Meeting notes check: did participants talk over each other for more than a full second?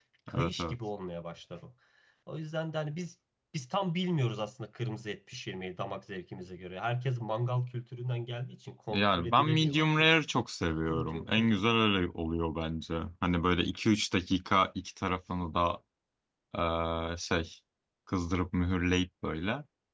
Yes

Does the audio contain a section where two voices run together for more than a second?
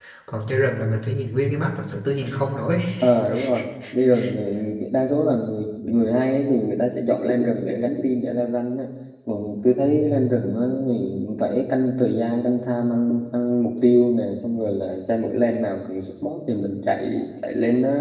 No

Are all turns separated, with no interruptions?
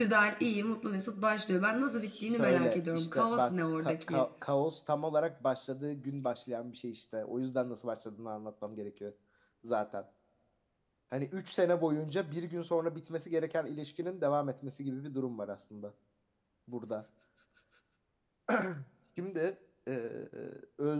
No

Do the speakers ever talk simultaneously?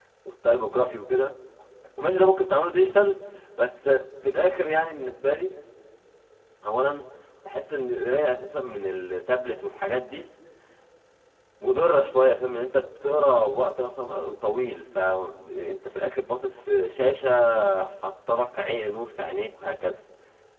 No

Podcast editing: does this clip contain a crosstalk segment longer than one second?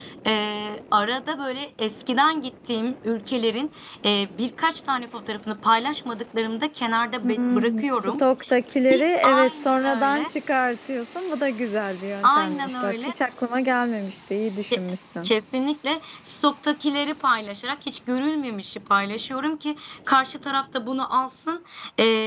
Yes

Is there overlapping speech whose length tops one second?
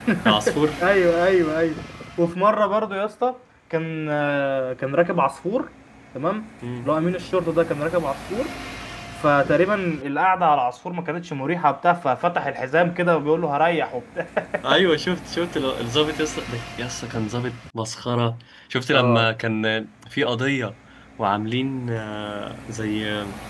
No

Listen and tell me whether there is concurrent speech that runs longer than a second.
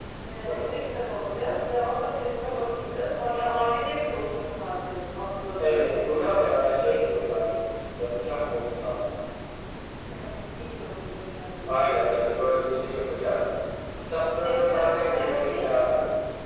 Yes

